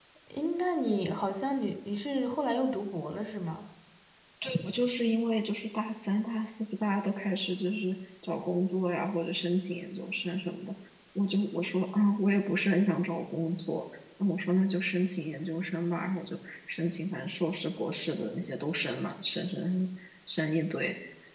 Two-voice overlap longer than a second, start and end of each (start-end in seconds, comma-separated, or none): none